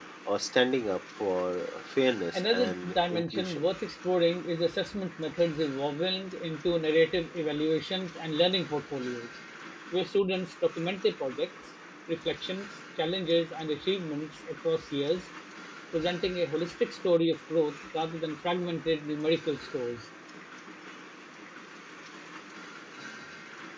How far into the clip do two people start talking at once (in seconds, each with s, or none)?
2.3 s